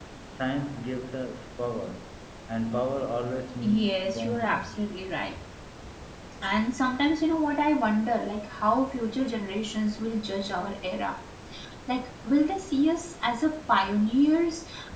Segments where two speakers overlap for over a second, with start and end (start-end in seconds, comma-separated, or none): 3.6-4.9